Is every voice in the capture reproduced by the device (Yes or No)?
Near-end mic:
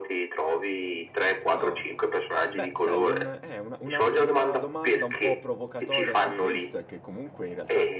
No